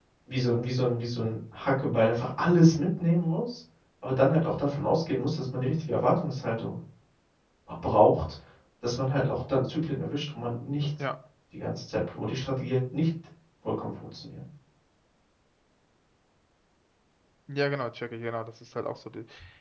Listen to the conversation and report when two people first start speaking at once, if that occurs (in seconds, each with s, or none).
none